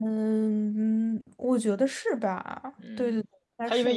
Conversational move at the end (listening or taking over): taking over